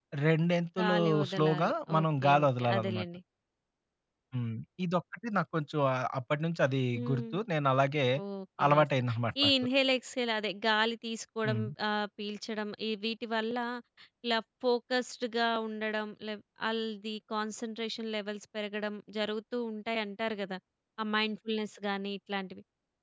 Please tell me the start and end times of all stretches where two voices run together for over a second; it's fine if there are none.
0.8-3.0

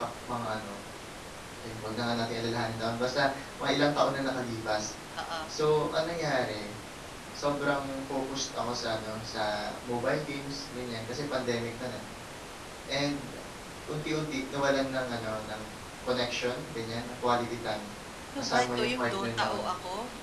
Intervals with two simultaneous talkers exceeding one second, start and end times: 18.4-19.7

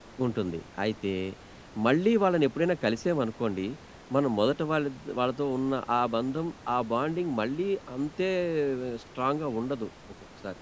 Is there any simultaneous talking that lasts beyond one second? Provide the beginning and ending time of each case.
none

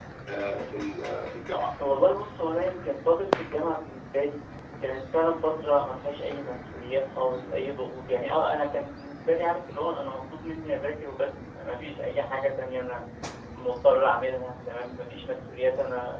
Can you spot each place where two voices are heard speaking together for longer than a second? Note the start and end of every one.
none

